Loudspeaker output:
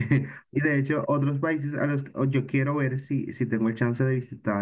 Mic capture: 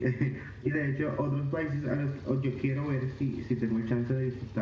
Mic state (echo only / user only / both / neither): echo only